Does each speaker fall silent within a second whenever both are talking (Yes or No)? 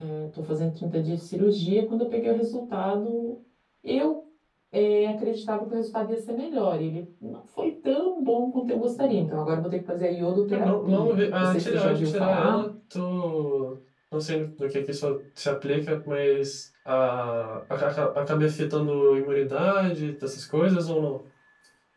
No